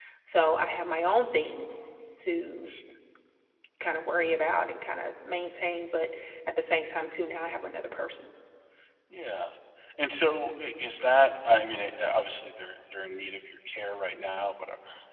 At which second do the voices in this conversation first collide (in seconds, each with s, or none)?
none